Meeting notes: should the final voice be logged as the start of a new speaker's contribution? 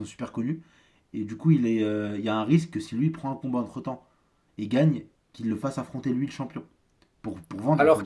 Yes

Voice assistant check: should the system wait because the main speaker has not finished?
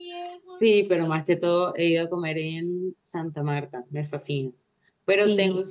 Yes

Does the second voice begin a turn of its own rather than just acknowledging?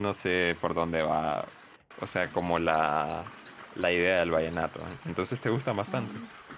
Yes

